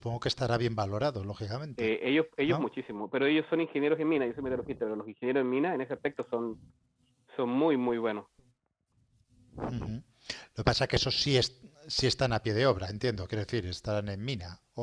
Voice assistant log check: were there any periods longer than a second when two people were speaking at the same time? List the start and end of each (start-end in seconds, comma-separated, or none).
none